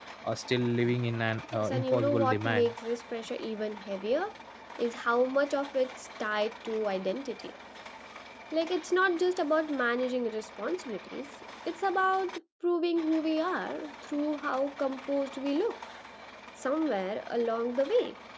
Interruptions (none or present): present